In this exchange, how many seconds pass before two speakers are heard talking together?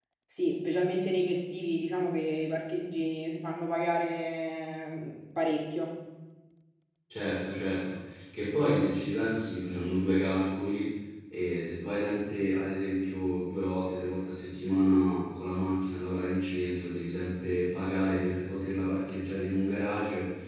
none

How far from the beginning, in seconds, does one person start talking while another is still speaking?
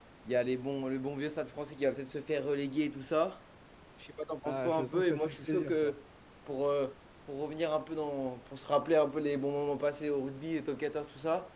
4 s

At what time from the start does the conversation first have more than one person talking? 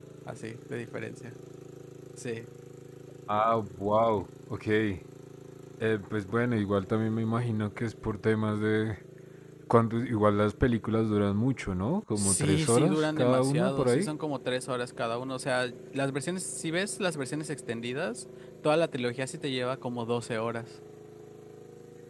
12 s

